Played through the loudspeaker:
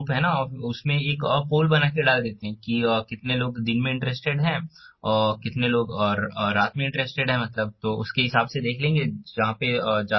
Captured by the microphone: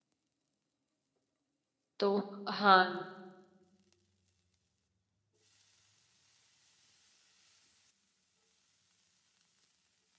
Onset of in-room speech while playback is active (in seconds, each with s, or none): 2.0 s